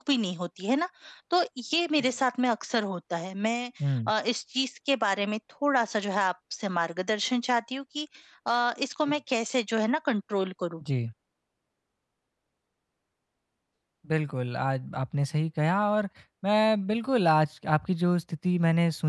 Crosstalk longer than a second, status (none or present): none